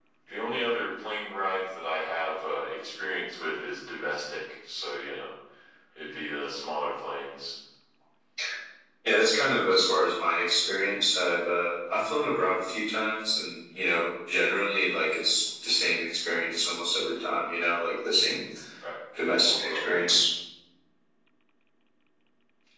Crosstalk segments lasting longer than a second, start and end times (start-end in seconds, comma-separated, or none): none